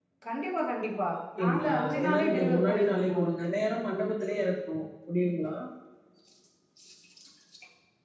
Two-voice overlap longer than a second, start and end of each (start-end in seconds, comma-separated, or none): 1.4-3.2